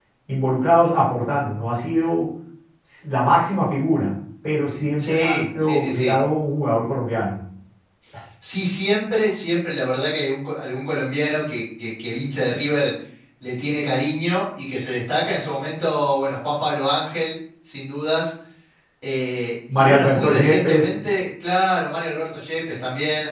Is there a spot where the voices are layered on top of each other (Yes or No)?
Yes